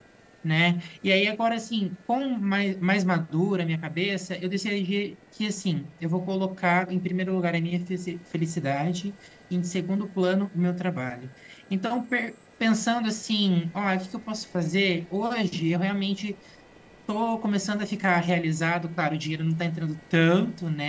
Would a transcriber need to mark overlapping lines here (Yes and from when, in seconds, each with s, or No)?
No